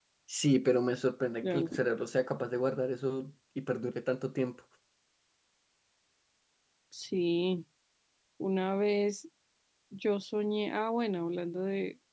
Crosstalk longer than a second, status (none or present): none